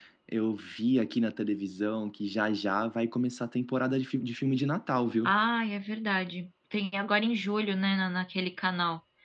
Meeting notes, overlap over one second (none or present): none